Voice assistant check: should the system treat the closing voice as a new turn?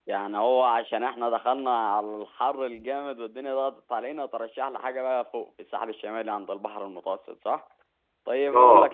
No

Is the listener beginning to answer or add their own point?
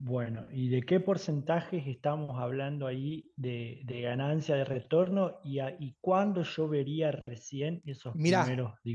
Yes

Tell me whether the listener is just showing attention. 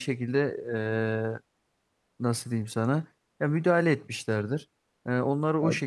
Yes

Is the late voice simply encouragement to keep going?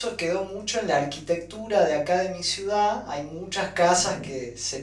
Yes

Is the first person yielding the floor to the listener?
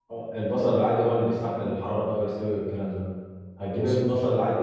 No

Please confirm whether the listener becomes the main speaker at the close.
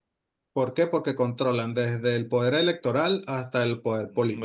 Yes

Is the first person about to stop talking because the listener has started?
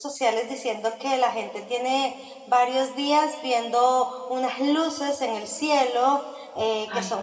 No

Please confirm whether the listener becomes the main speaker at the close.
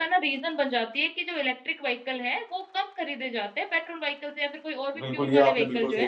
Yes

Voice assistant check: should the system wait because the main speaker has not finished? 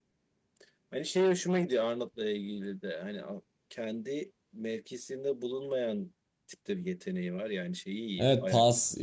No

